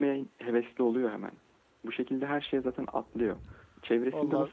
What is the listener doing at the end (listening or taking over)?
listening